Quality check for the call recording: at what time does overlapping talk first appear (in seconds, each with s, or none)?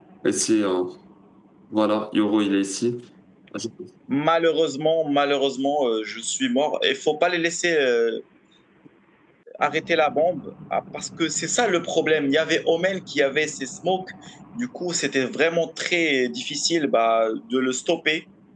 none